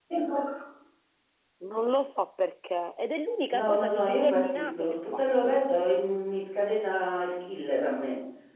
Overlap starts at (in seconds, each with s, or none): 3.5 s